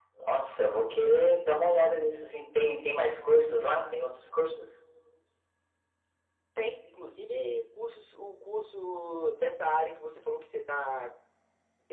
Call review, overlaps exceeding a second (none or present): none